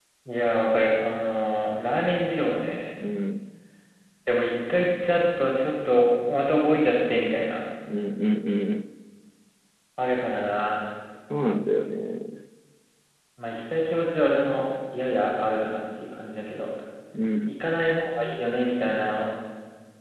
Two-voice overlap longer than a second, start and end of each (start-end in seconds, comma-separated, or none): none